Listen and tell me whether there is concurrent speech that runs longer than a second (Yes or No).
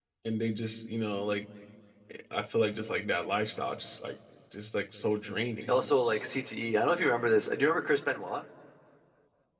No